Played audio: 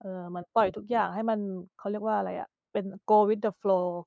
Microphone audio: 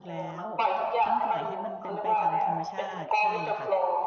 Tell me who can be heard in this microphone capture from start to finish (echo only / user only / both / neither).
both